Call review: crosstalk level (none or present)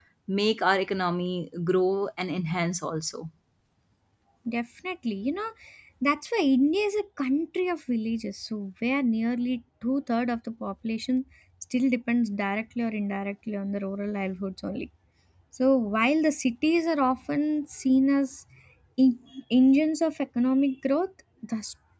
none